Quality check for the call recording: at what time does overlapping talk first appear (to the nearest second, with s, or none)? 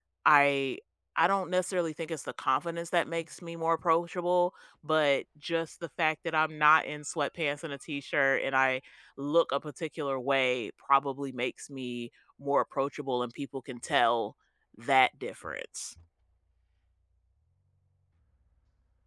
none